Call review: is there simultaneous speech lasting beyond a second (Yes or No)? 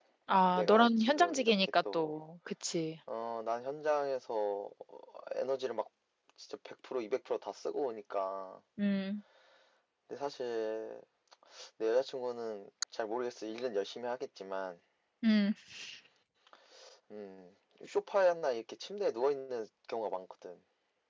Yes